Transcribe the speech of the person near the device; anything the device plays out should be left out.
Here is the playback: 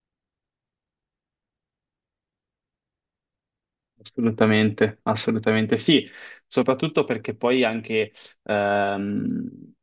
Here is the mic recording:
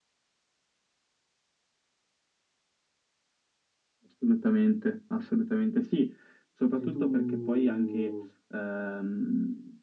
E se tu,

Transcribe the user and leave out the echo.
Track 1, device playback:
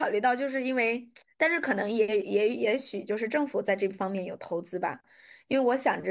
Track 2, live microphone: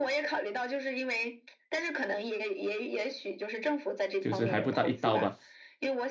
就是还不到一刀吧。

